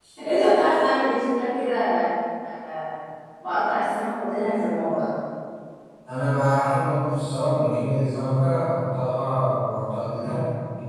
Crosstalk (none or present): none